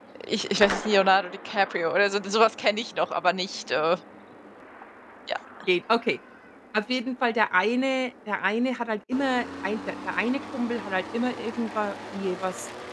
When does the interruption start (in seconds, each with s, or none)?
none